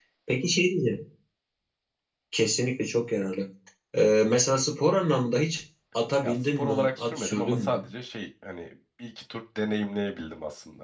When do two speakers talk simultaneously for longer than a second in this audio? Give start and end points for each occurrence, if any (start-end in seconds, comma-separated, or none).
6.2-7.9